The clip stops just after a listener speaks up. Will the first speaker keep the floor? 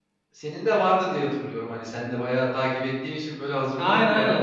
No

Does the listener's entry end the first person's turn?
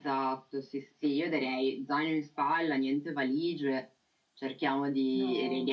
No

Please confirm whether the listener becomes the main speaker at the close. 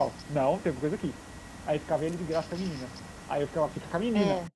No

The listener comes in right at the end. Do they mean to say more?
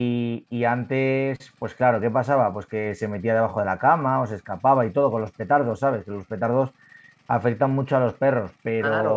Yes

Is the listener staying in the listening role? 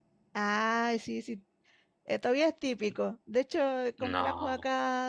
Yes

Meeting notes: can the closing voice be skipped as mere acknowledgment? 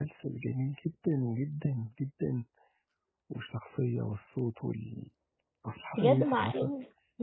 No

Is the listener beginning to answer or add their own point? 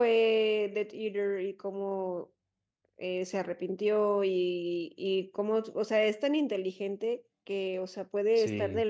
No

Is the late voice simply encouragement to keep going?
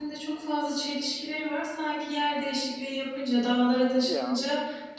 Yes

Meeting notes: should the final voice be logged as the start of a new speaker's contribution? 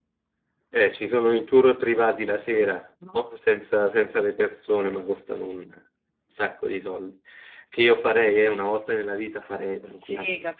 Yes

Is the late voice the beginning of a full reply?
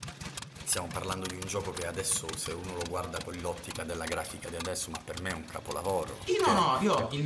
Yes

